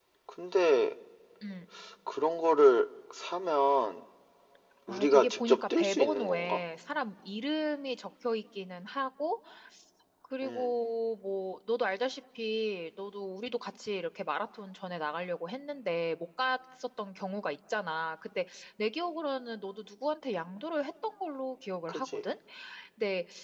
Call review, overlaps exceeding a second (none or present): present